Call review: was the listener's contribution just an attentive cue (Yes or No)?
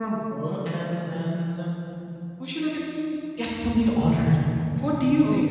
Yes